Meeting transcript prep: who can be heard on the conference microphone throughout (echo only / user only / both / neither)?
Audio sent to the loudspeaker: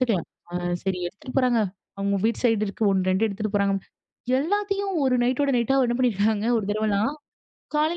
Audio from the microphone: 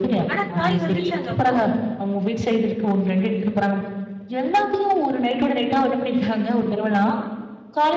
both